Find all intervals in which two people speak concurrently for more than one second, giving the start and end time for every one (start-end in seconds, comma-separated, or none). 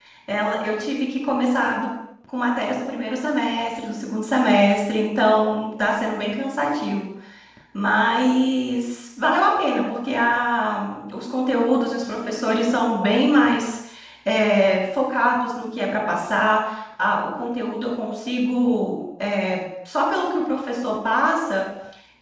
none